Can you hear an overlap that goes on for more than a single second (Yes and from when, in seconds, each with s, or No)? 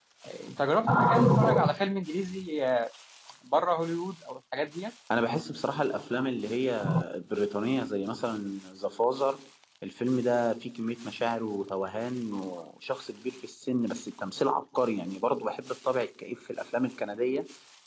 No